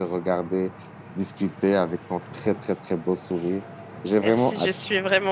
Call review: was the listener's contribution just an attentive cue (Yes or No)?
No